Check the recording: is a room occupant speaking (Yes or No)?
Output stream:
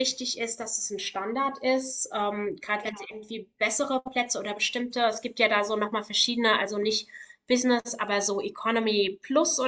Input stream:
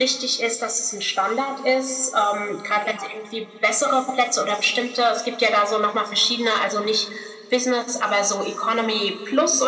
No